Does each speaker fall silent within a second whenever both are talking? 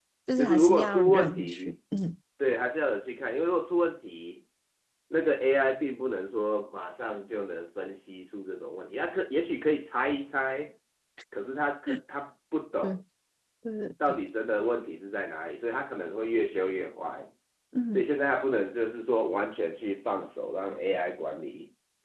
No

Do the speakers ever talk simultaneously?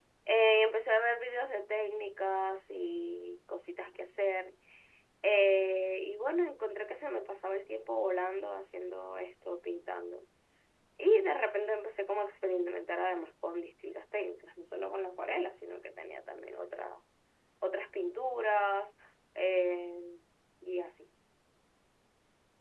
No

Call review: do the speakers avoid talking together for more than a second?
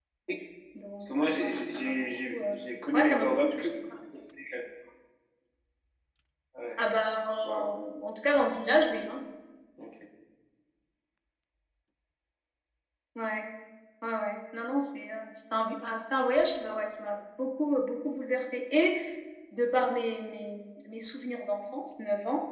No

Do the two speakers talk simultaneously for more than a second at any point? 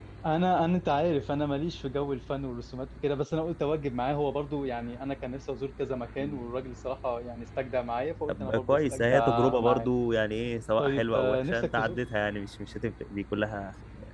Yes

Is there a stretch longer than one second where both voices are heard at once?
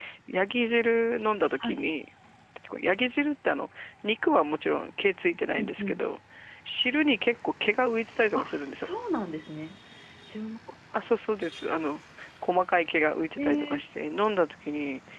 No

